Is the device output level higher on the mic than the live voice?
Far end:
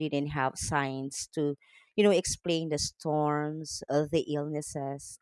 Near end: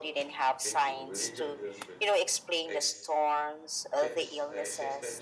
Yes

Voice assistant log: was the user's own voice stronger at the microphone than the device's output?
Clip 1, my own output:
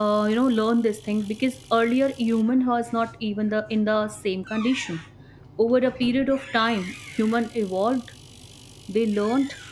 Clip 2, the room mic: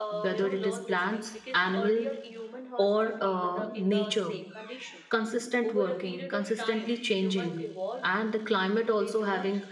Yes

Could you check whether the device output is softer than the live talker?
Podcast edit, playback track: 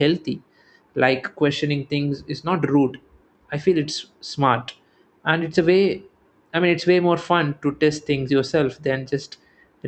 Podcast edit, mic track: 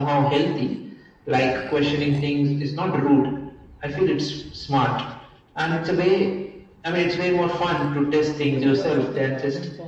No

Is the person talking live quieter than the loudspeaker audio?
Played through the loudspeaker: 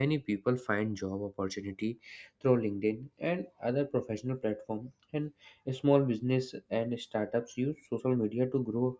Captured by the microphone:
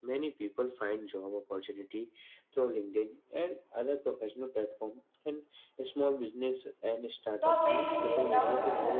No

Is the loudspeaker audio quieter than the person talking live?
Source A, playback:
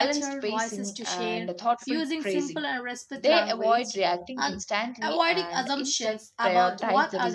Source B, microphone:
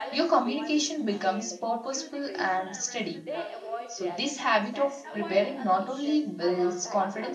Yes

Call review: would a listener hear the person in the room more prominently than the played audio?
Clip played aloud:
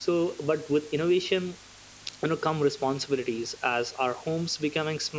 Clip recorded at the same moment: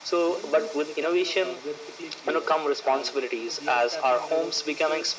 No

